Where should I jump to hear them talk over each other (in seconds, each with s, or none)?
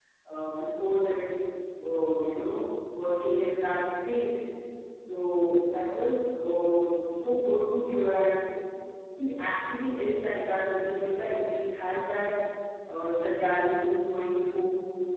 none